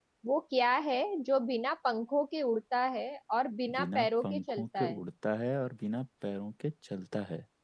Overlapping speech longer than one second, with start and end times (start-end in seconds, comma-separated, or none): 3.7-5.0